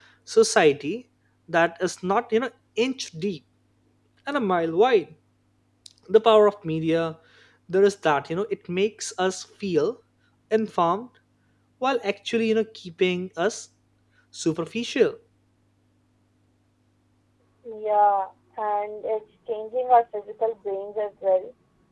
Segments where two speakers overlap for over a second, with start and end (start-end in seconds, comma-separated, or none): none